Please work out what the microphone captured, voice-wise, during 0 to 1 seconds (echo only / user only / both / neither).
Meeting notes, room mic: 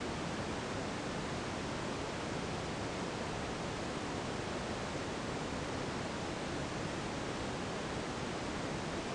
neither